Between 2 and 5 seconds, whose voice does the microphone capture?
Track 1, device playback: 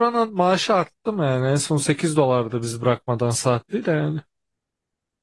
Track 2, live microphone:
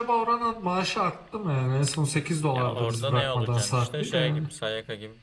both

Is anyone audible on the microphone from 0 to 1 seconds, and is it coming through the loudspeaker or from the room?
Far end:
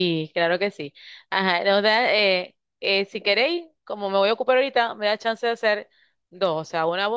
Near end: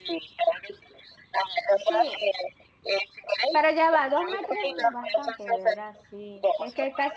echo only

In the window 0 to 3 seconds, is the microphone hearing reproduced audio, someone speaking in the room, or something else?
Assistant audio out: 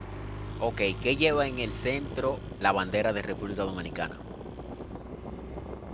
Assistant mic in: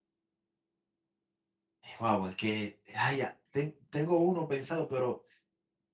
user only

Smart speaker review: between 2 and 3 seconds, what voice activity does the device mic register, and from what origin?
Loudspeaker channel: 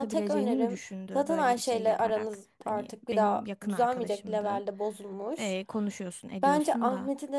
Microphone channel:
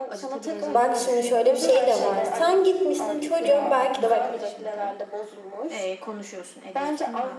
both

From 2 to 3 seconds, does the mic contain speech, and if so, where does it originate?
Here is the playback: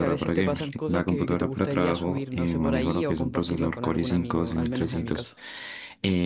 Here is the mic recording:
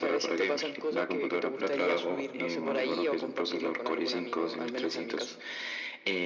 echo only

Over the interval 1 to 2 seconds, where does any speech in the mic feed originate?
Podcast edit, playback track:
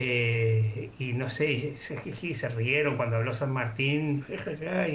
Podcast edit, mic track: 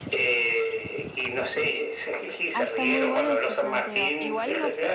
echo only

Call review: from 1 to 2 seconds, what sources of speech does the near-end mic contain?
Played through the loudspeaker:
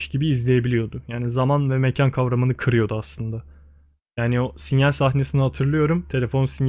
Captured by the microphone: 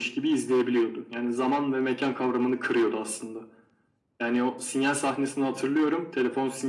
echo only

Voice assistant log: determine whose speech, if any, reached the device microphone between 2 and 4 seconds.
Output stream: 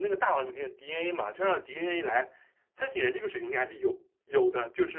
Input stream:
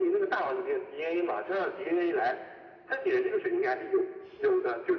echo only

